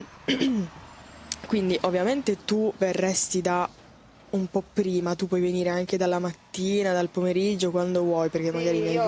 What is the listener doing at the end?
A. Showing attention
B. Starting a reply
B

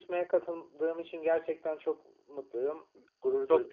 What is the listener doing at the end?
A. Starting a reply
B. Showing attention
A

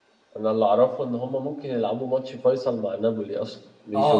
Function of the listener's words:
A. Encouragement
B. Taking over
B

